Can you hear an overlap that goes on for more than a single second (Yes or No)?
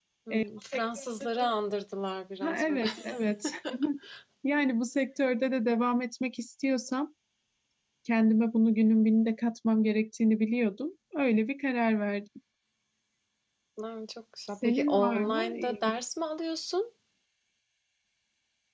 Yes